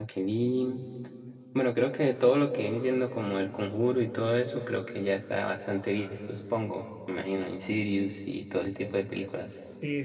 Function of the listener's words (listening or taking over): taking over